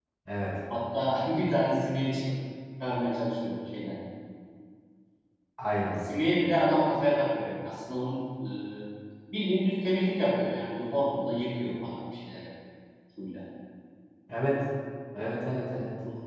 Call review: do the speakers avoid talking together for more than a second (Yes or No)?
Yes